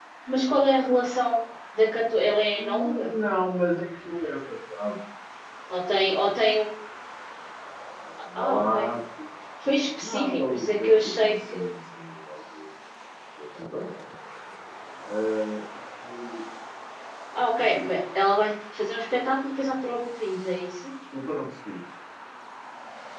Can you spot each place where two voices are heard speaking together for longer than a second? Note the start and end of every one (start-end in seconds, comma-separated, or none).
10.0-11.6